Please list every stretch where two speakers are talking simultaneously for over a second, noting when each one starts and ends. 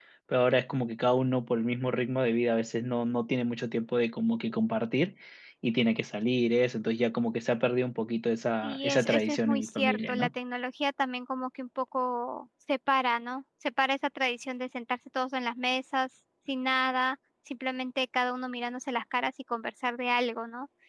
8.6-10.3

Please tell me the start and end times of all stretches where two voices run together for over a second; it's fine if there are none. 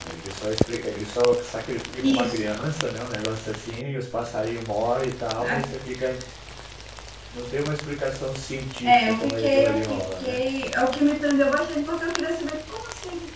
8.8-10.4

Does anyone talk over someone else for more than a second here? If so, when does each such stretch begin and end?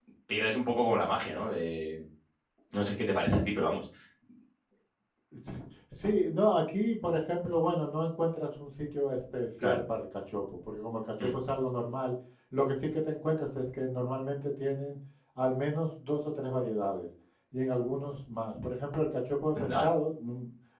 none

